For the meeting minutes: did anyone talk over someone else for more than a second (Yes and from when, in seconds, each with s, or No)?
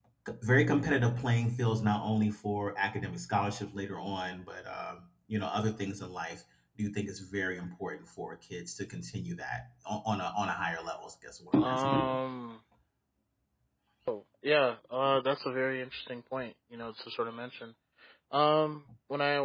No